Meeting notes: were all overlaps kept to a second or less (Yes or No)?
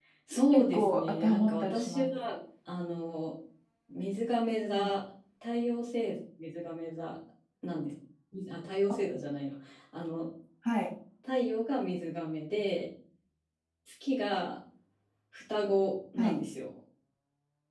No